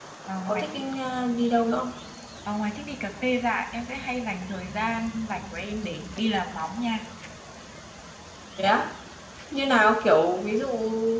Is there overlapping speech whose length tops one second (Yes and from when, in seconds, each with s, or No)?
No